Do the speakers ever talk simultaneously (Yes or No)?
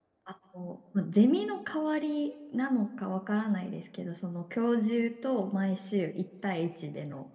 No